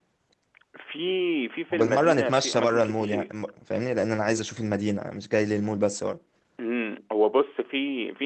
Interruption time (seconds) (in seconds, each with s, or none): 1.7 s